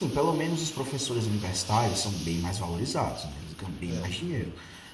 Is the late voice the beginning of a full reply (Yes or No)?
No